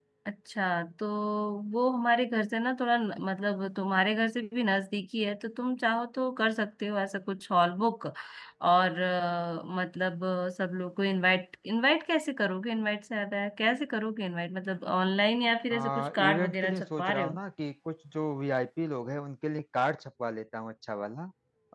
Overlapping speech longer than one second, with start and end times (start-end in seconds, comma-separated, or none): 15.7-17.4